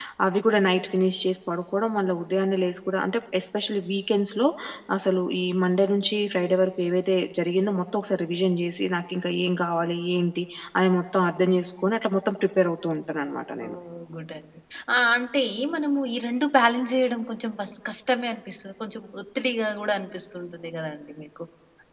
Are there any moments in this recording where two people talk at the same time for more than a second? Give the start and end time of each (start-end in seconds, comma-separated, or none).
none